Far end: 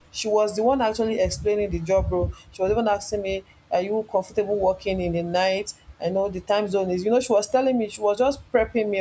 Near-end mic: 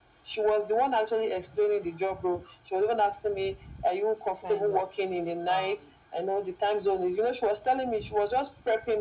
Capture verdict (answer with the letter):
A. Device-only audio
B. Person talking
B